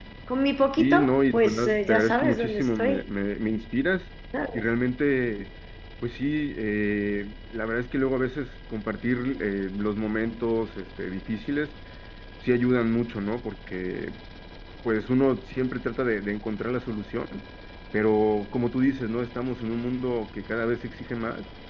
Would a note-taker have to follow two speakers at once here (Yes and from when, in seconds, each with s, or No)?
Yes, from 0.8 s